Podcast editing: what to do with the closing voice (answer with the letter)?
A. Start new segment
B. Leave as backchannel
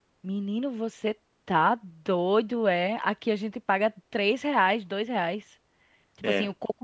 B